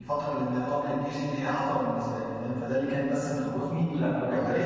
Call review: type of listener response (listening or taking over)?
taking over